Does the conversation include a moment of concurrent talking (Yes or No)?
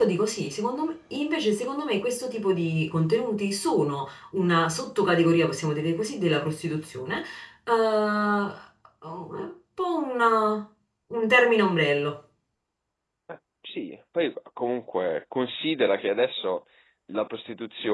No